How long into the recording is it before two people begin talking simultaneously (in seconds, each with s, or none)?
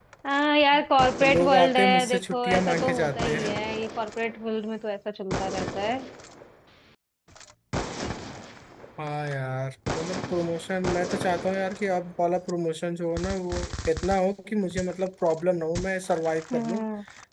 1.2 s